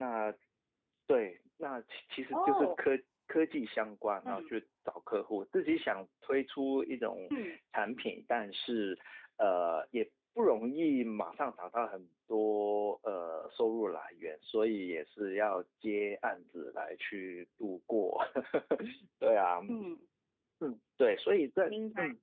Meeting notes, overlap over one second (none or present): none